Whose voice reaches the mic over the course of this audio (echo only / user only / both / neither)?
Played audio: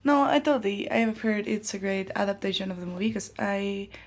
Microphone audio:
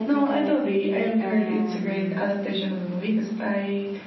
both